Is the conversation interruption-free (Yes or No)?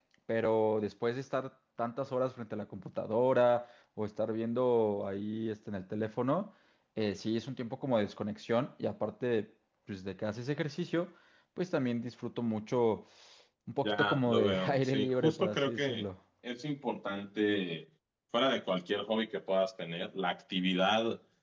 No